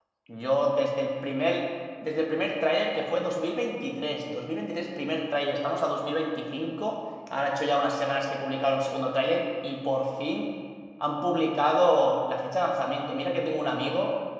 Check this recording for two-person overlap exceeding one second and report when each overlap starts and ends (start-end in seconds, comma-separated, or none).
none